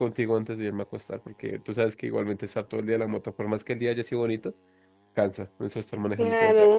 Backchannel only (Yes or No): No